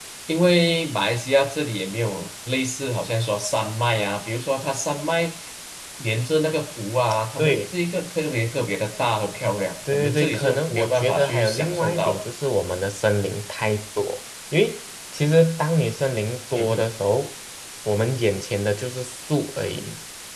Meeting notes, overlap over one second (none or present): present